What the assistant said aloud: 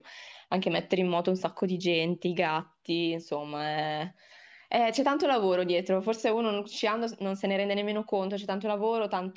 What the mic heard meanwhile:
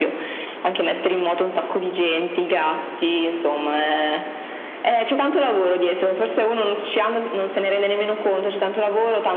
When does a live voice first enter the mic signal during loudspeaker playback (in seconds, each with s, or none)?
none